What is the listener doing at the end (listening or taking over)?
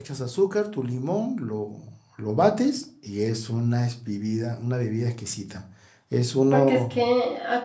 taking over